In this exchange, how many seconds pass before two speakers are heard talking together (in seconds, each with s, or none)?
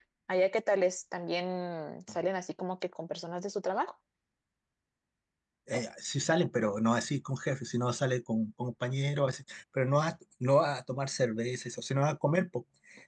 none